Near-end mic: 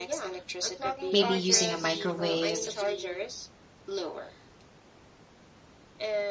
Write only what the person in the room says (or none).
maybe using a microwave,